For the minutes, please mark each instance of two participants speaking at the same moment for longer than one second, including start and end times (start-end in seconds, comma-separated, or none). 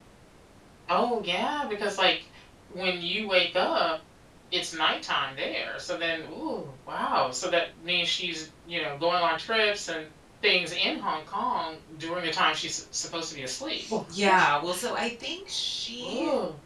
none